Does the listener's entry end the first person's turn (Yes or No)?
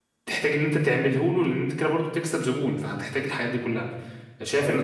No